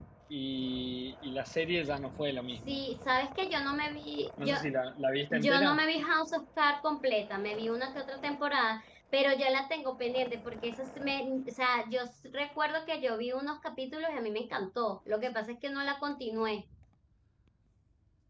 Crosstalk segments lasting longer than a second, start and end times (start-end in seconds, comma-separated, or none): none